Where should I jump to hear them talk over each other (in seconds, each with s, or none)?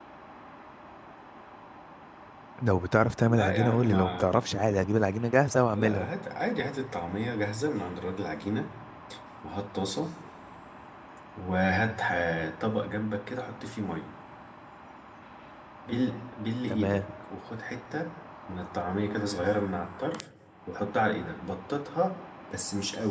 3.3 s